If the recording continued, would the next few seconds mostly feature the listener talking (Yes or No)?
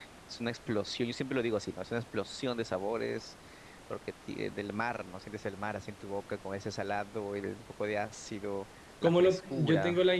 Yes